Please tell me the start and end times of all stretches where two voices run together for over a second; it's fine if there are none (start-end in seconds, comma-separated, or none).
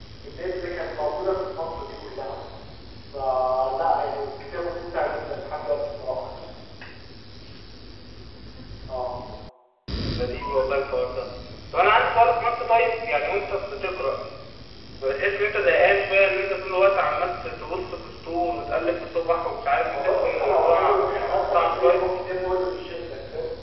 19.9-22.1